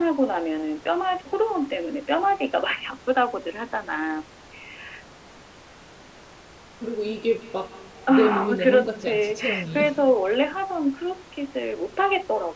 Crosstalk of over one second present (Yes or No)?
Yes